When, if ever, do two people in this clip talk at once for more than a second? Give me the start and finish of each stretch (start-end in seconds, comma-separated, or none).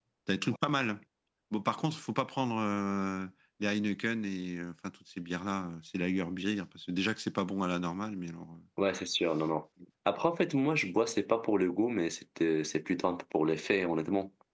none